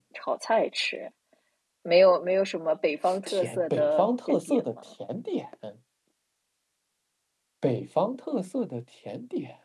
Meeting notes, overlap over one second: present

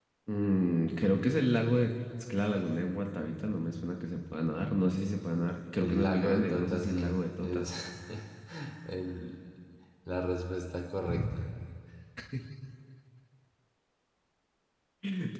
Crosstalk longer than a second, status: present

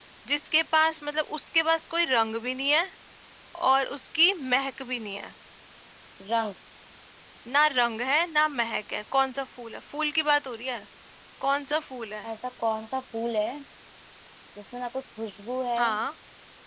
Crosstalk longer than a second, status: none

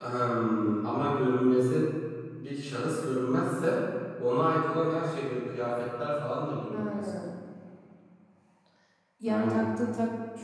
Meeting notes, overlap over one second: none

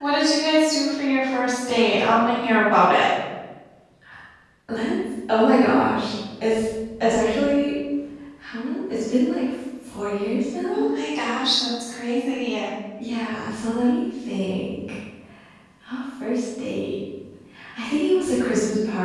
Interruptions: none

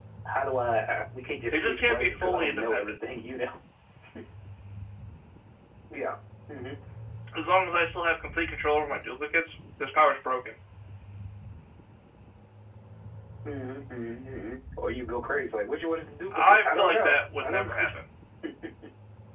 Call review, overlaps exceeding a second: present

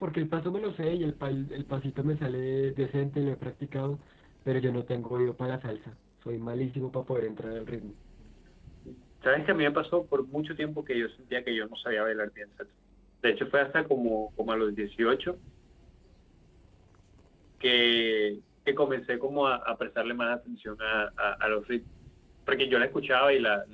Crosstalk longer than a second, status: none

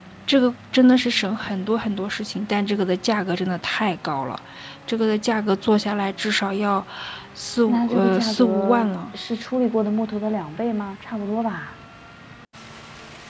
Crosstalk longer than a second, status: present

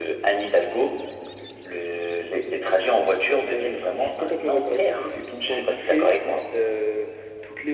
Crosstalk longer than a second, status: present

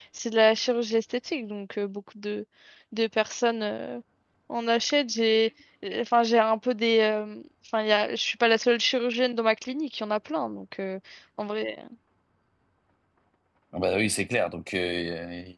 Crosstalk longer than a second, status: none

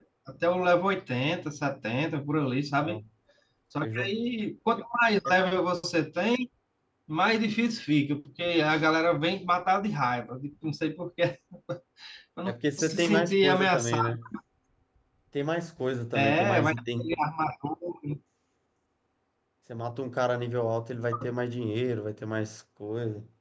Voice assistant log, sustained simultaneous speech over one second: present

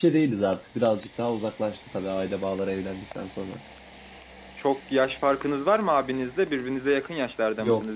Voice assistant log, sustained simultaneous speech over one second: none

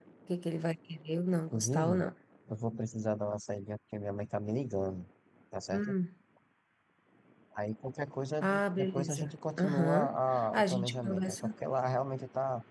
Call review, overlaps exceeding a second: present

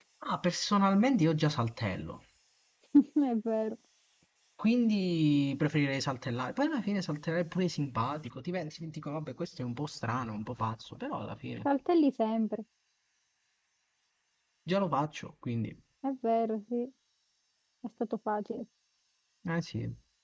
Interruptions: none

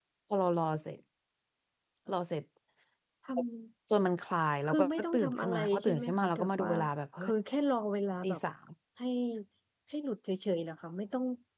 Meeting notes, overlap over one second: present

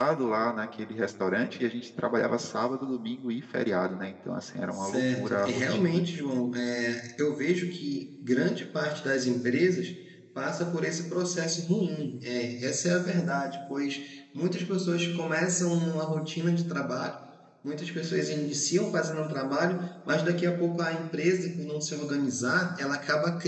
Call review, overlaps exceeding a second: present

